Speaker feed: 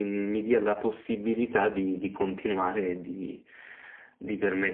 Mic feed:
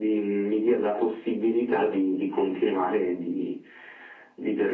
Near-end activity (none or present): none